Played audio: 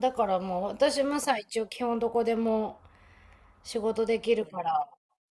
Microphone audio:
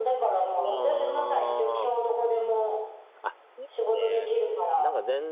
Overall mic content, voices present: both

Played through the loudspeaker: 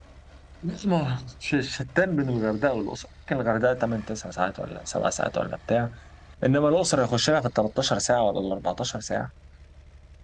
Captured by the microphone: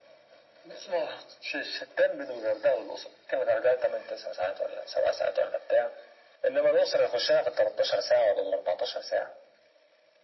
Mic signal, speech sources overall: echo only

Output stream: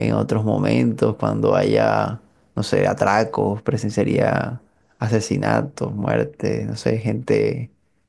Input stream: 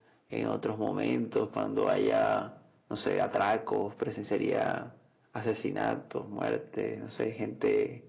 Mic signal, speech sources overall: echo only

